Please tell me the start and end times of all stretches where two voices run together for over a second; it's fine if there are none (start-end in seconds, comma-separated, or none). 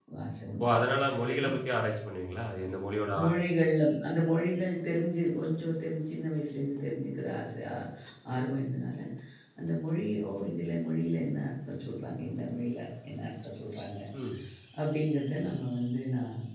none